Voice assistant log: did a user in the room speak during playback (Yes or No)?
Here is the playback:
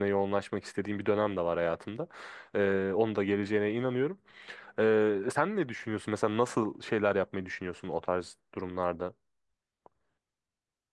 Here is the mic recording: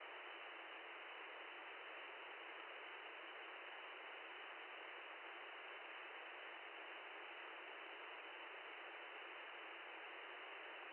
No